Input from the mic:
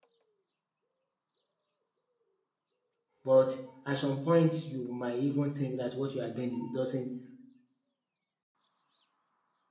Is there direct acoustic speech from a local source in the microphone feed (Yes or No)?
Yes